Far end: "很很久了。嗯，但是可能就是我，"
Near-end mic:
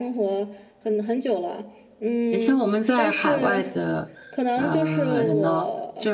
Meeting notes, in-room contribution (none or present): present